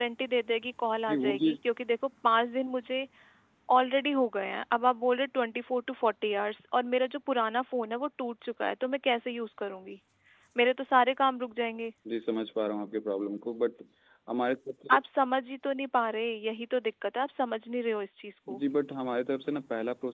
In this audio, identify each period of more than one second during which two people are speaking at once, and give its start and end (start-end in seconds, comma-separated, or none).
none